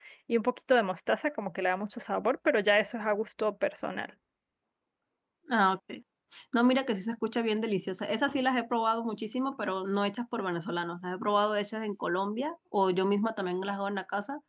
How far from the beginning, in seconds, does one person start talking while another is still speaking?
none

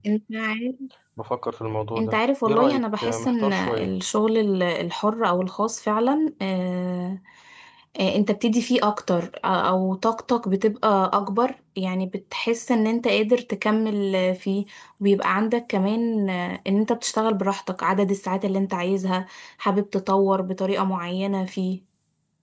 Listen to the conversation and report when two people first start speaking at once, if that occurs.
2.0 s

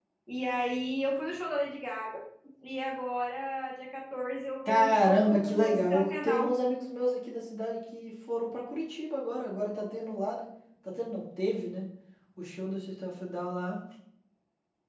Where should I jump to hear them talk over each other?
4.6 s

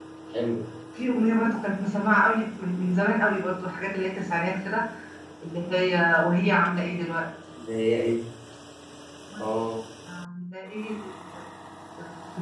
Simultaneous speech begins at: none

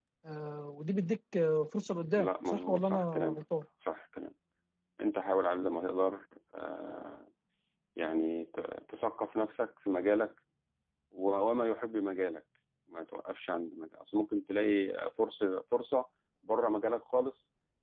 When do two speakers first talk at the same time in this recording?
2.1 s

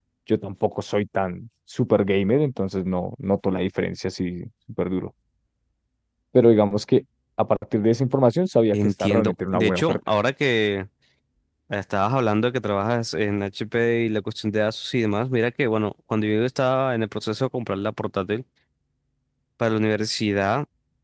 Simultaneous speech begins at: 8.7 s

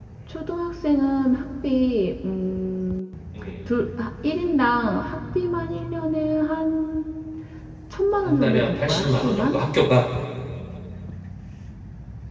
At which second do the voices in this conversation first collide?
8.2 s

